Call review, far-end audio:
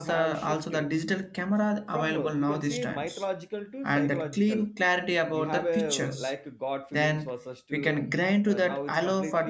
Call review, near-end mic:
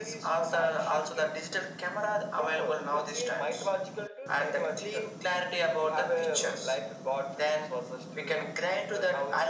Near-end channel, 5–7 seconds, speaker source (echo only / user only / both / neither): echo only